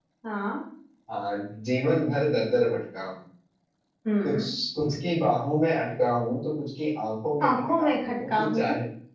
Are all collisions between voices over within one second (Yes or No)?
No